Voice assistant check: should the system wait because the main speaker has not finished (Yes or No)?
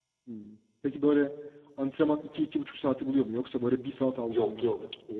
No